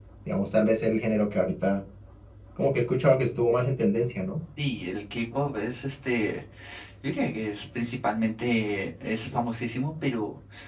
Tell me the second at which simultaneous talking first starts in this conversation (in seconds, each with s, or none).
none